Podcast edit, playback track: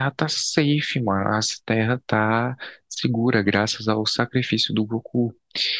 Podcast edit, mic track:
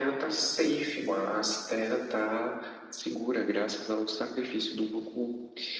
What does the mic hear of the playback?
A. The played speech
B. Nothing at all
A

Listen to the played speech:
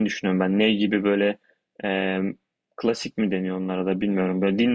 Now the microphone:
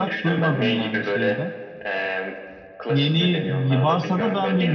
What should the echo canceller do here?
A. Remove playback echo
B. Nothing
A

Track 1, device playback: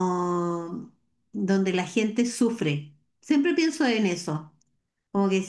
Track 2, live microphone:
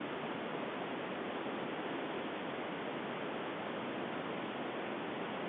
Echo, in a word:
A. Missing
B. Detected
A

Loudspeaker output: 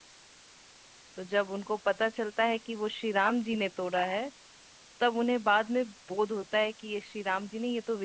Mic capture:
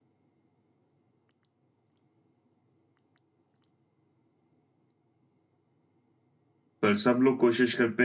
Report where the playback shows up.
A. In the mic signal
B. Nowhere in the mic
B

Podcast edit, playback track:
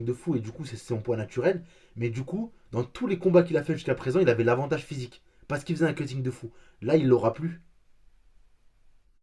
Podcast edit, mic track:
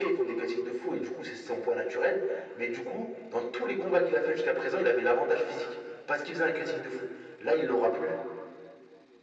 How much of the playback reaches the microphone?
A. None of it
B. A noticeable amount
B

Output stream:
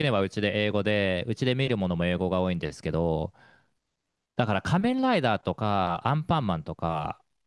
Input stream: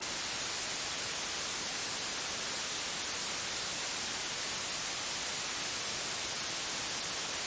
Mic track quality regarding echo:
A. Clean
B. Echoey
A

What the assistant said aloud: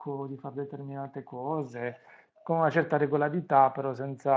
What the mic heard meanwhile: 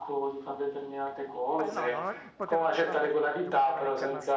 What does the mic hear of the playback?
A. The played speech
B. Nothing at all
A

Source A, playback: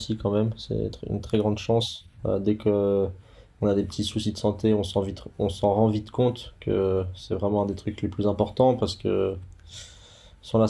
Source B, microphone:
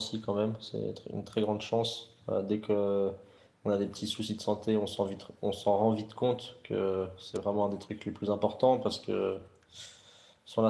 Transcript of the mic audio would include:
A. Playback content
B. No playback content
A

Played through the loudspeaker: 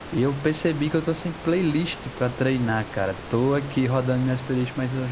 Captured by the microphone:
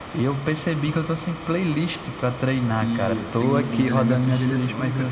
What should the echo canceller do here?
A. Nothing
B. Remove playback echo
B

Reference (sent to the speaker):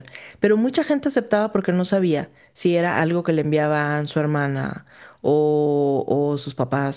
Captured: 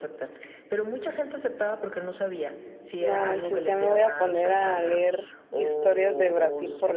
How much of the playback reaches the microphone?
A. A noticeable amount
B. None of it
A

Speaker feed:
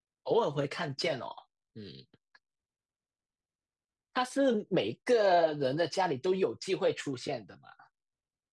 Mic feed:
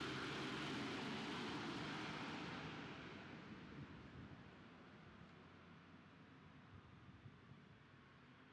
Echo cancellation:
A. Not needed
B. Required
A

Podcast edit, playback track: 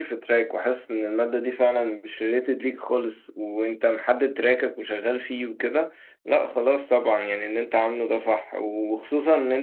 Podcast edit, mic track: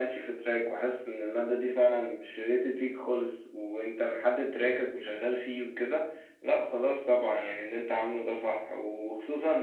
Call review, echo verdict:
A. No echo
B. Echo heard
B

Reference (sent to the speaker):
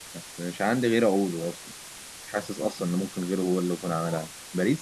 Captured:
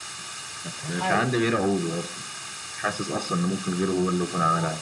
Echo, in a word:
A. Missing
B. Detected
B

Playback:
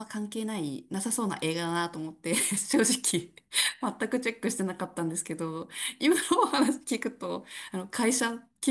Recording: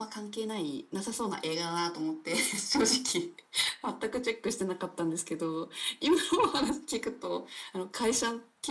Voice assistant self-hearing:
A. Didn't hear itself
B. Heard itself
B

